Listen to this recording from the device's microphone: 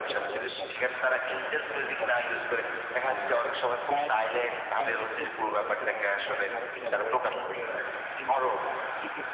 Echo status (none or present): present